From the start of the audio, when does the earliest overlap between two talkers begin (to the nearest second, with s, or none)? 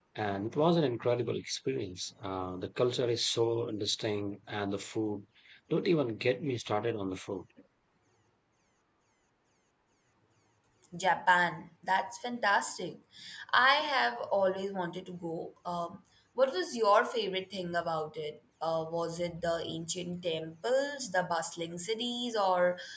none